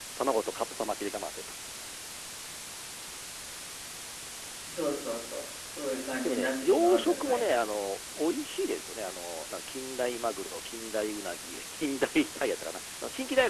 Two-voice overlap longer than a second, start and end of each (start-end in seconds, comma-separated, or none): 6.2-7.5